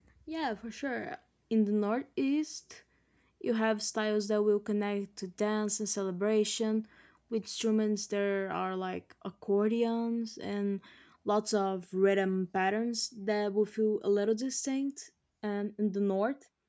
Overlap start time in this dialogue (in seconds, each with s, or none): none